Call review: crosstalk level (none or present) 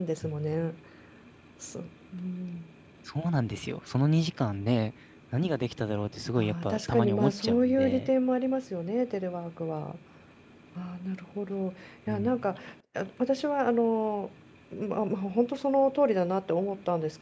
present